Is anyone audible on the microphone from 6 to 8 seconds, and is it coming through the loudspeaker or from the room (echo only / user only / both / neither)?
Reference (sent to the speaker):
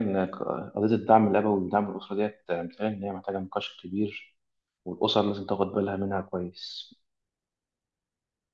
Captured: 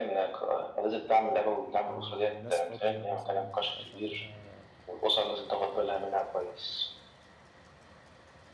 echo only